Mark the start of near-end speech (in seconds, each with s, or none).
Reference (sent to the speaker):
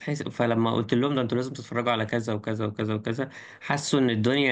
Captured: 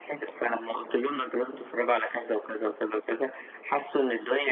none